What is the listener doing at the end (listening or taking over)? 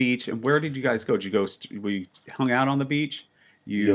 taking over